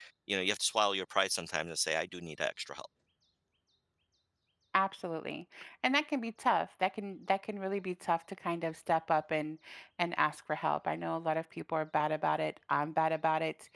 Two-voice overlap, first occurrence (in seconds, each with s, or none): none